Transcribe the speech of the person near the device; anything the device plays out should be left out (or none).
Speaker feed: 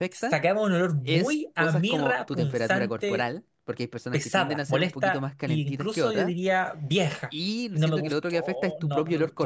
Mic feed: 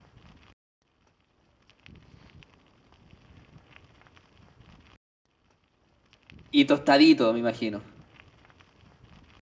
y tostadito, me imagino.